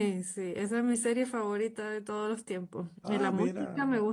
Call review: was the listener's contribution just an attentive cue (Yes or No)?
Yes